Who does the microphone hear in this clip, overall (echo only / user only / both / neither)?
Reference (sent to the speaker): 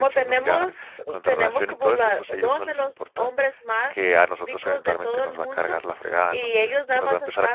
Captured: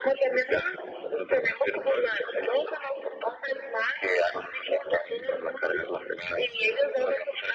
echo only